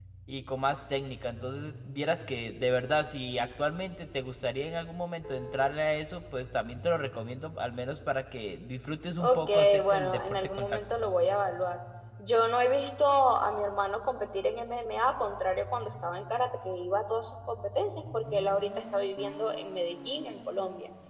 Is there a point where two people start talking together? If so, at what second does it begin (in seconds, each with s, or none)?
9.2 s